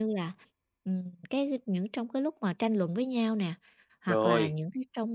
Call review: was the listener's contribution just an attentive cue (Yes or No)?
Yes